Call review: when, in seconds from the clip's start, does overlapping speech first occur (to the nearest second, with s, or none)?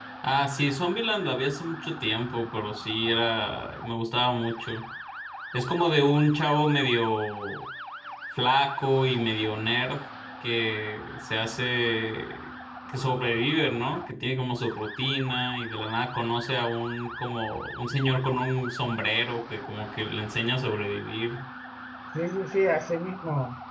none